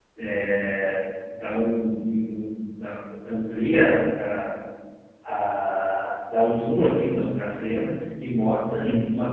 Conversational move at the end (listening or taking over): listening